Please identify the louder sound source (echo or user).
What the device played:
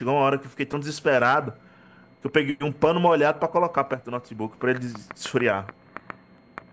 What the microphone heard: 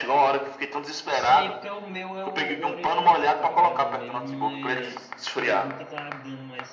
echo